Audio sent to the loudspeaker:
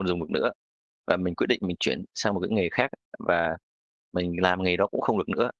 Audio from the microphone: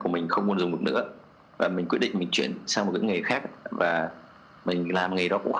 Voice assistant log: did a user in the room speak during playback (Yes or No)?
No